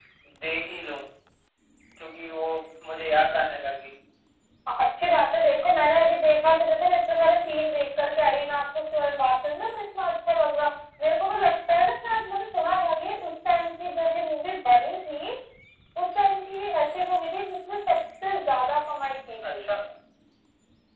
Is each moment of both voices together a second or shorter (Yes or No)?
Yes